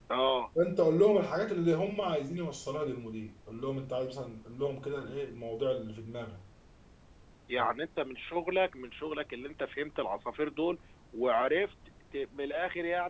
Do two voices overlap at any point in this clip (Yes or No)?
No